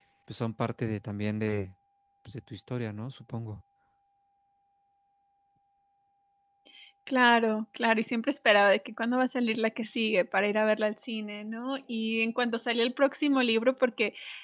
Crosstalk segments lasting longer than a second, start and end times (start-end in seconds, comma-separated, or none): none